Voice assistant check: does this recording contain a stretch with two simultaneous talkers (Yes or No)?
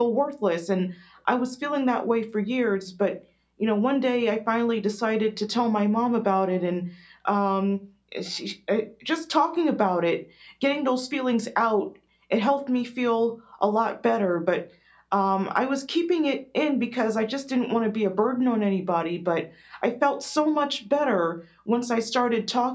No